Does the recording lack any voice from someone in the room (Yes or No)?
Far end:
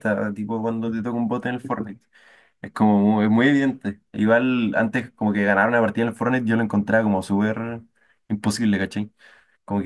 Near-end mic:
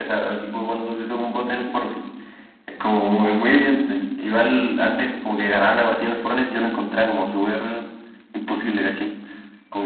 Yes